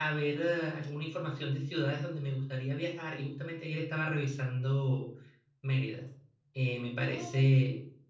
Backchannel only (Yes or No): Yes